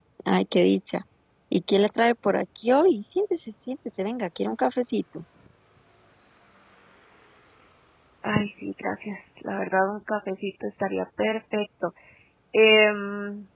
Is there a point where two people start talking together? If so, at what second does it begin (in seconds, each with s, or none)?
none